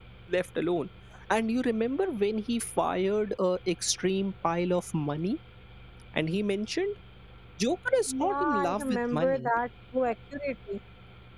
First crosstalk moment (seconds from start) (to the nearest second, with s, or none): 8 s